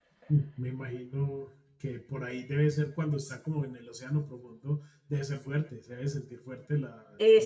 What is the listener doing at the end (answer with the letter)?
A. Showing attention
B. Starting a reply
B